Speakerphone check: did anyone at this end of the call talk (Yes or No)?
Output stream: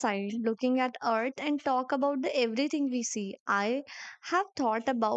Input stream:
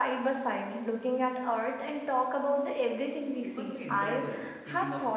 Yes